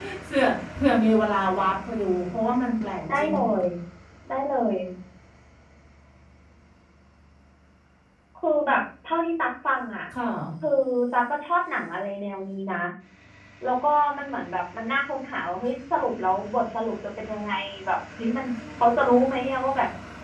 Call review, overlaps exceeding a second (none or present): none